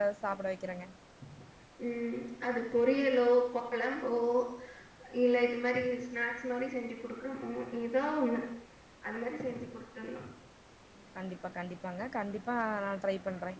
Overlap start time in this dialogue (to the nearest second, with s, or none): none